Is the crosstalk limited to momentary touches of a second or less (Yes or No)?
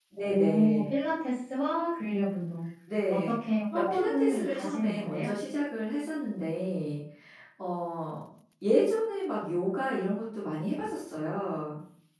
No